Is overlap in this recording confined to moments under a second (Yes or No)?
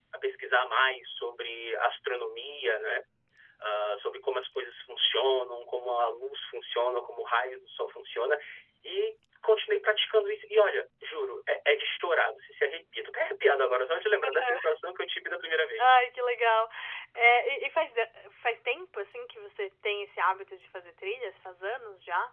Yes